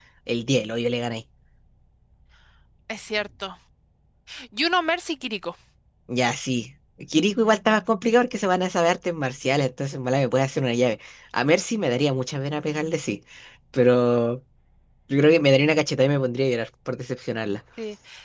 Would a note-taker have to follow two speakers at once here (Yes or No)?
No